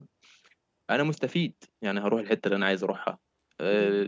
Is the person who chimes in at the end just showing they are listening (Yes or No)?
Yes